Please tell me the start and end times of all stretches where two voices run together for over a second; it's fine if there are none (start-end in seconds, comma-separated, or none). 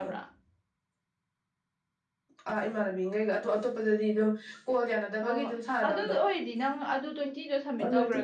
none